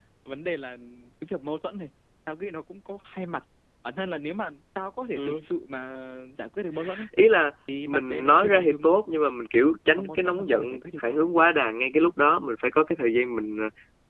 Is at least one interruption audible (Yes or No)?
Yes